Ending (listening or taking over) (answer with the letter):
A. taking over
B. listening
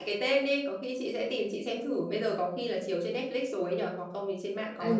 A